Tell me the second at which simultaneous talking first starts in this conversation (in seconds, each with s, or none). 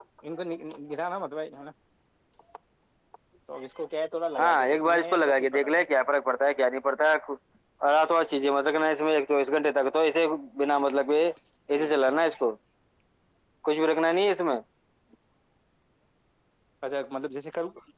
4.4 s